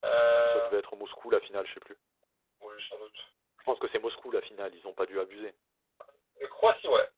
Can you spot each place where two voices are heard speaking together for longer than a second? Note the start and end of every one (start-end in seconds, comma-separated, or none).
none